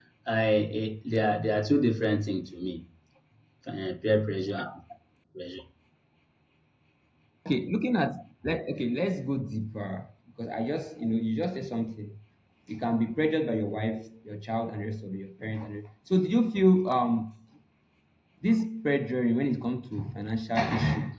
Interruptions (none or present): none